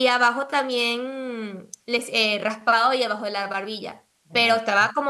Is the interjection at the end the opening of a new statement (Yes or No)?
No